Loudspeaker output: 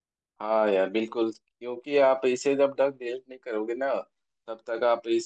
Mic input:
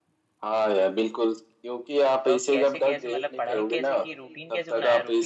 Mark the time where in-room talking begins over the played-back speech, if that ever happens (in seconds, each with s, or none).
2.2 s